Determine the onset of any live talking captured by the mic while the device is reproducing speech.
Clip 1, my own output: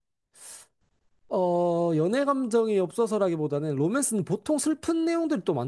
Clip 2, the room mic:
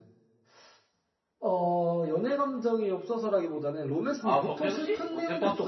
4 s

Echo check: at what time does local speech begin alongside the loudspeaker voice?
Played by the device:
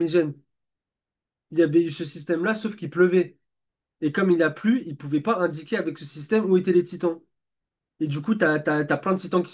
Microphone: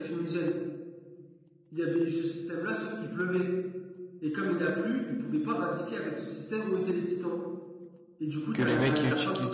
9 s

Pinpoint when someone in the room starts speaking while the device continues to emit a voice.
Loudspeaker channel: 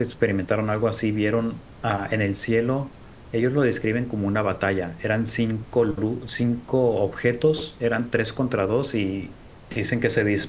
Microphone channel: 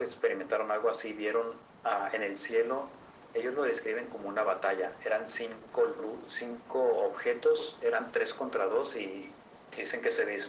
none

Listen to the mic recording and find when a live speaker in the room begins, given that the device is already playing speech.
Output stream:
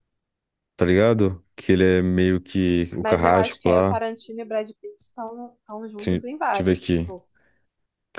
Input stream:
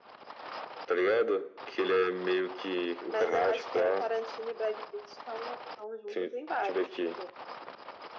none

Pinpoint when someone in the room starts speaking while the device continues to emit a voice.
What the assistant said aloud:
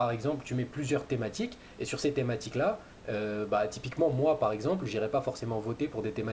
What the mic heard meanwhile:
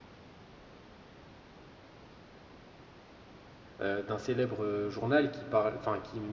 4 s

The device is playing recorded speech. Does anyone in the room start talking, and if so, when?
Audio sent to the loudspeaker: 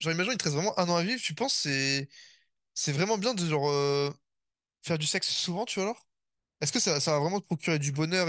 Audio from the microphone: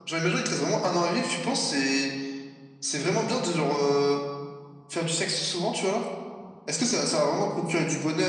none

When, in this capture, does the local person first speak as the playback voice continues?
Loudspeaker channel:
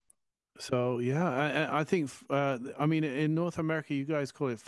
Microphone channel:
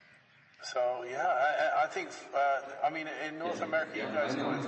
3 s

